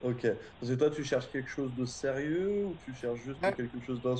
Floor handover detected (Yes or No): No